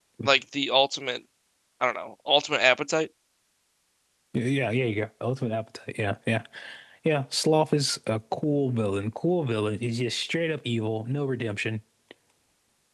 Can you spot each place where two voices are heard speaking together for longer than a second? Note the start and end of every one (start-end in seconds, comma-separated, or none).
none